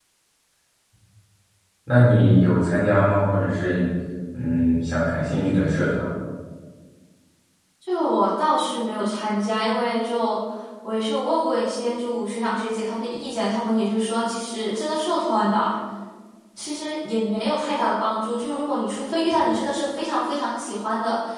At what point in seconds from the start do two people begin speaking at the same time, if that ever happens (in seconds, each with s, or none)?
none